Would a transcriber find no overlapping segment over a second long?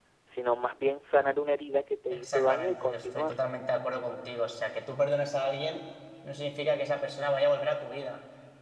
No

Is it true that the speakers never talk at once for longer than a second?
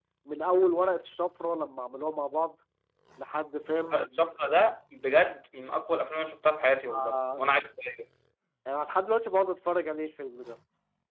Yes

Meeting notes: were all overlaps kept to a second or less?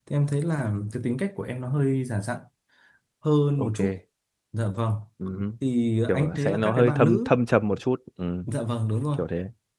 No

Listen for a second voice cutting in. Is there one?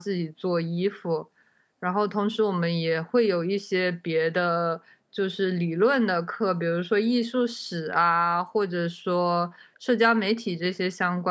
No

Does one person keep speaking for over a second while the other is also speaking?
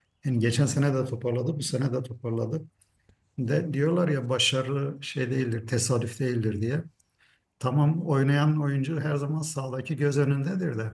No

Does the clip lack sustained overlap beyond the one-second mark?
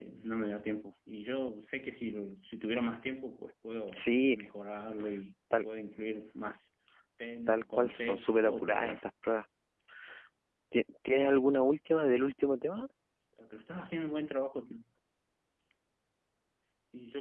No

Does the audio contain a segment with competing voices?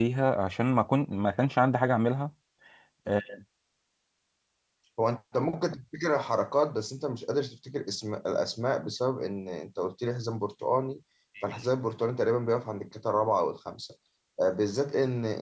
No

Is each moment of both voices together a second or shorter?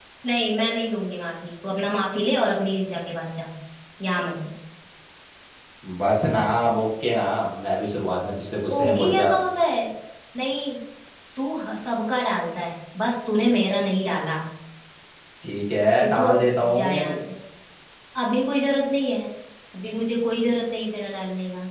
No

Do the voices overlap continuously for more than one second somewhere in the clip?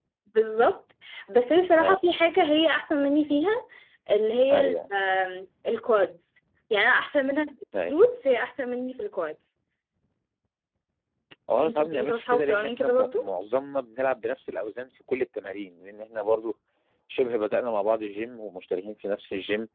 Yes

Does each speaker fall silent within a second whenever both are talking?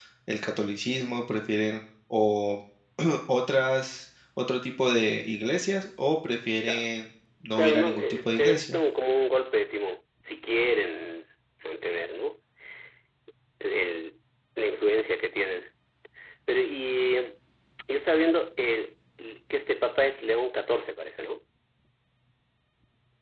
No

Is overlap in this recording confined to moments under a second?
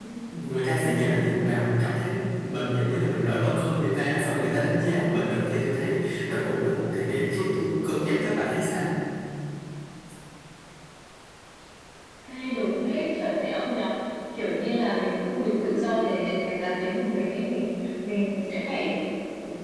Yes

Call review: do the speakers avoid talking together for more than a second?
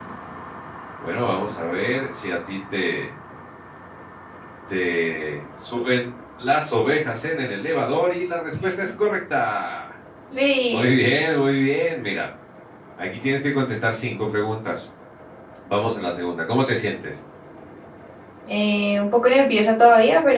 Yes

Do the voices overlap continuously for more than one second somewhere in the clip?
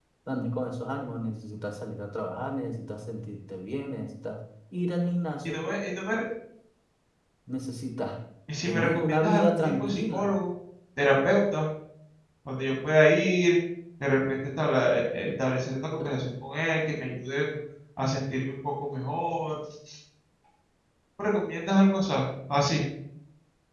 Yes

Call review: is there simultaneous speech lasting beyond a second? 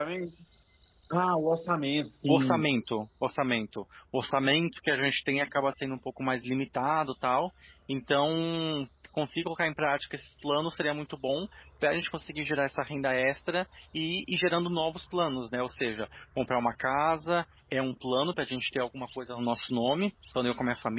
No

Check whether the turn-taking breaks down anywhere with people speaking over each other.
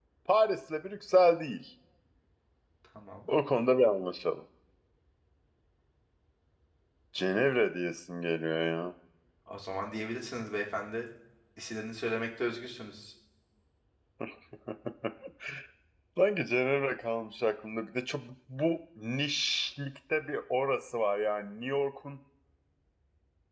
No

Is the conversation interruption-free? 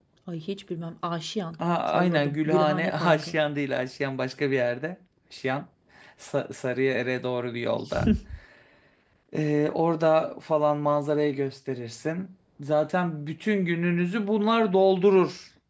No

